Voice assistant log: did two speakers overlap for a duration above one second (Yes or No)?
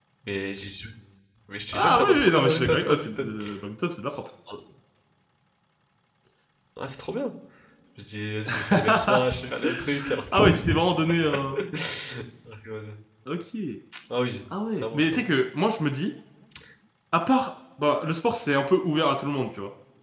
Yes